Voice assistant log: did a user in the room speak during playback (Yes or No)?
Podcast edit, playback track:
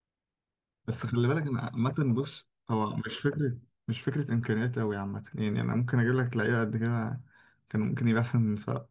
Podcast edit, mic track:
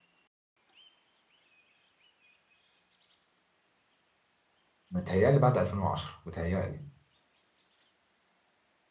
Yes